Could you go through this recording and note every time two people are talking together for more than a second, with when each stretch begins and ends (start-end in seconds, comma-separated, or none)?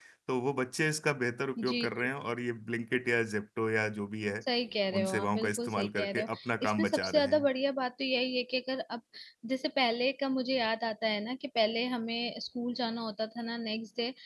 4.9-7.3